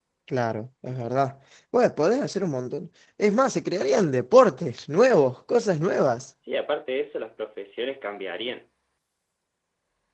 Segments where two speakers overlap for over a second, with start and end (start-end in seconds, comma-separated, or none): none